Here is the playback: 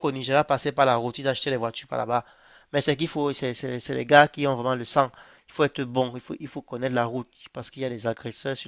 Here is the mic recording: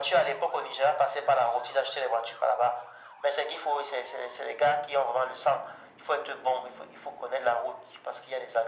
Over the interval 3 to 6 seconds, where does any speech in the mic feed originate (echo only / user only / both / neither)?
echo only